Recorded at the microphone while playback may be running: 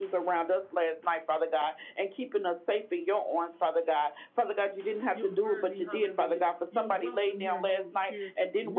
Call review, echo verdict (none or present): present